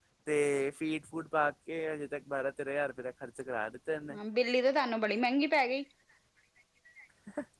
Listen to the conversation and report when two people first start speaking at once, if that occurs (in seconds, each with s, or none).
none